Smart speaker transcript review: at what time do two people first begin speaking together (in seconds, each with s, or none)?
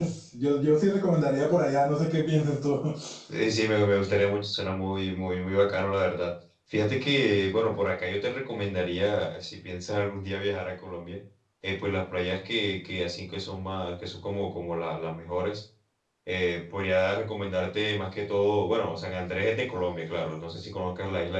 none